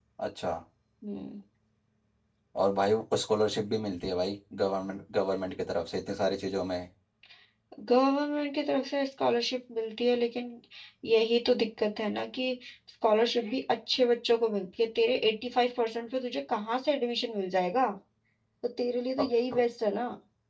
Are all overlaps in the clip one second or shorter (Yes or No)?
Yes